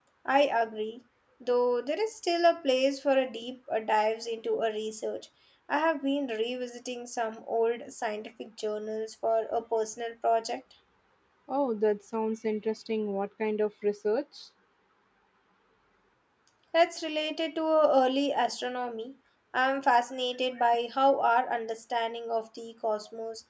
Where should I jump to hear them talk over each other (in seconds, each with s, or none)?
none